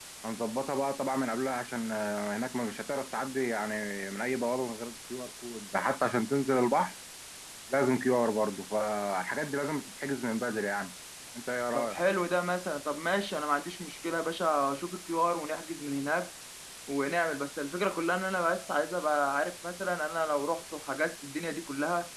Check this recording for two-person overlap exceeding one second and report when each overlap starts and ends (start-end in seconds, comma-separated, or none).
none